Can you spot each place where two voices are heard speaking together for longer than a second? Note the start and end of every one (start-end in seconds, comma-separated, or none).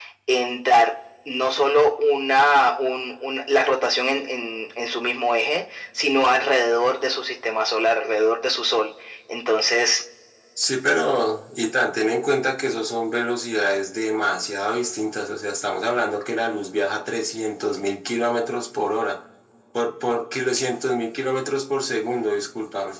none